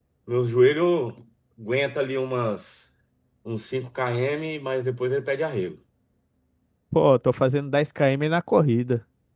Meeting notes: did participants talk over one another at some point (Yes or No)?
No